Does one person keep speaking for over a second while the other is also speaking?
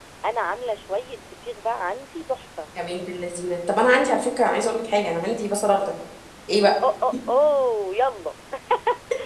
No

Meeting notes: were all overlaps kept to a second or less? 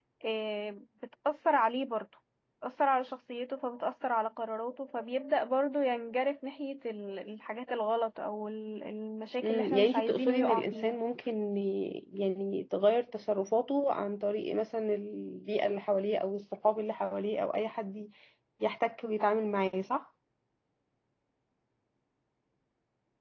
No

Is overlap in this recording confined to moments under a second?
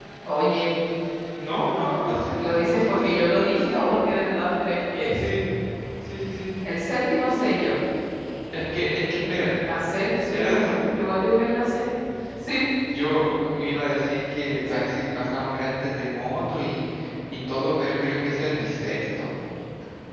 No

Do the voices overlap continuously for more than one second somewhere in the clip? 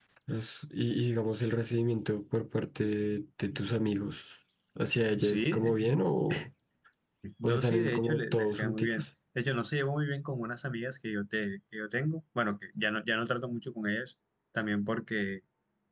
Yes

